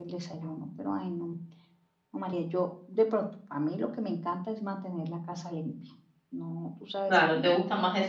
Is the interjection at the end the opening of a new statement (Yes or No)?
Yes